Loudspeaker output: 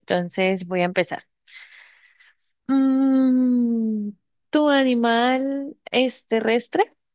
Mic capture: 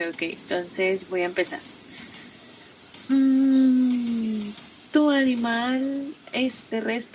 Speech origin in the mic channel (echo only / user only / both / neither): echo only